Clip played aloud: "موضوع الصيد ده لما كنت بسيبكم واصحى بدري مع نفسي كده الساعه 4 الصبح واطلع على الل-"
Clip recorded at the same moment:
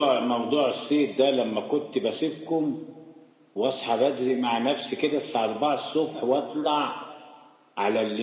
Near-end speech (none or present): none